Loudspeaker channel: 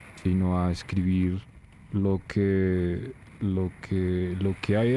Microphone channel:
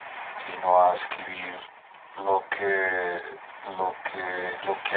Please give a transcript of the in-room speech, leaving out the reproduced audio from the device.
none

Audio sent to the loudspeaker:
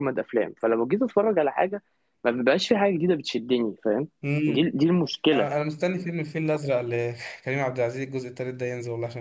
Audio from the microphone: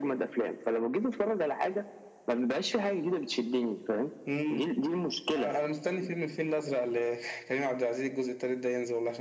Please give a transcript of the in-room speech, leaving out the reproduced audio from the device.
none

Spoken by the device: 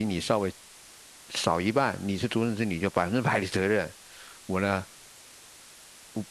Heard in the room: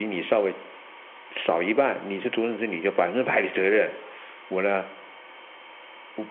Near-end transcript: none

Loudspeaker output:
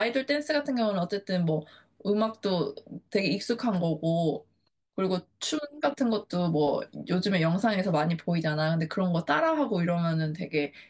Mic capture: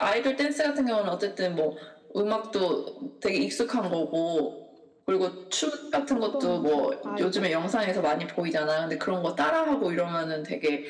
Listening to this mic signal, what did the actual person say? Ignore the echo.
어떤 춤? 아이돌?

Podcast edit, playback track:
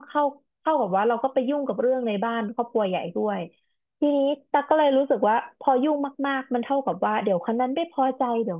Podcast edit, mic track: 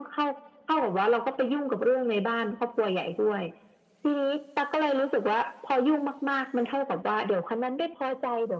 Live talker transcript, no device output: none

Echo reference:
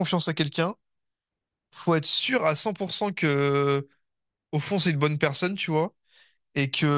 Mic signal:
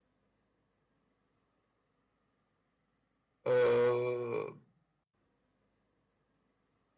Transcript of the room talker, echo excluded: Euh,

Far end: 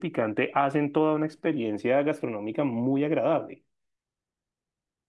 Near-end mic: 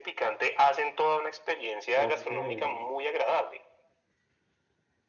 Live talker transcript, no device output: ok.

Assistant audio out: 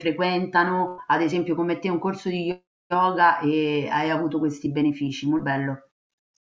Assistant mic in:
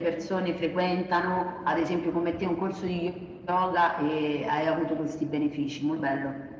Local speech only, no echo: none

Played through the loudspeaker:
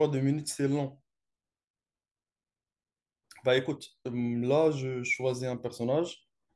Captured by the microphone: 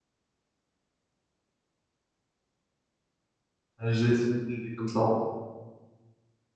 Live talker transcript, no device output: à j'ai essayé d'aider comme ça. en-

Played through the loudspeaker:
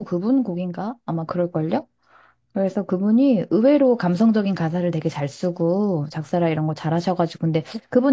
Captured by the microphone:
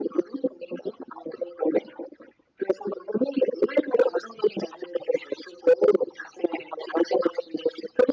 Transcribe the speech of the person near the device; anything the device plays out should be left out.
none

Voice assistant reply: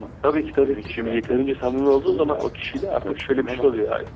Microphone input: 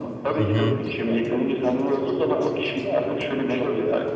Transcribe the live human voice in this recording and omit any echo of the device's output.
Hı hı.

